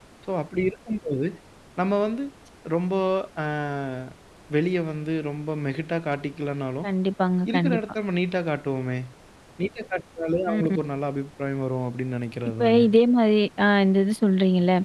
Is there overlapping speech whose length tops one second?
No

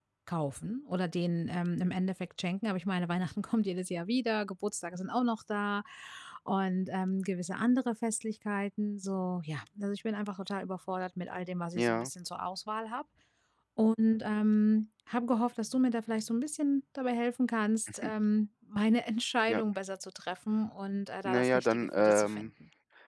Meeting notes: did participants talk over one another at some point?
Yes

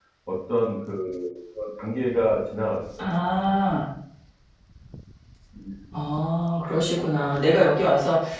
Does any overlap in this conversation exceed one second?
No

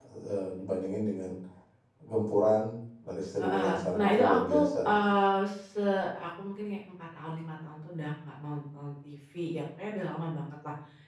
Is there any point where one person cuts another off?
Yes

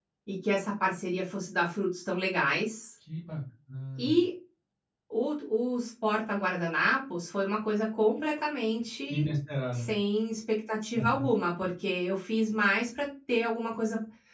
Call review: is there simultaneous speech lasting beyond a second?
No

